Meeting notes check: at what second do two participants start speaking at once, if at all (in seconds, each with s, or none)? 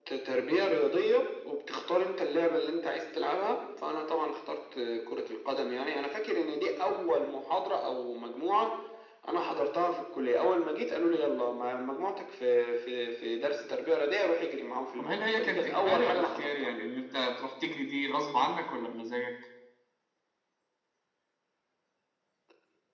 15.0 s